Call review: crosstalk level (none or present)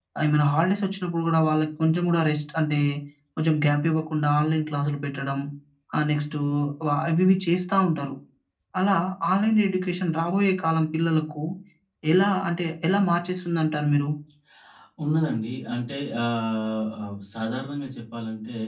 none